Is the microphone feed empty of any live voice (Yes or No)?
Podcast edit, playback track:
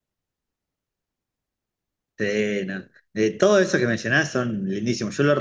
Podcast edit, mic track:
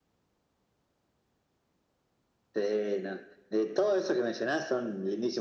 Yes